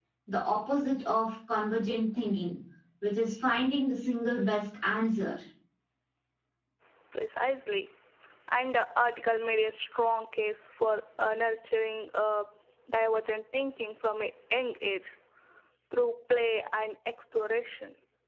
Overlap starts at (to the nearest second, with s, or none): none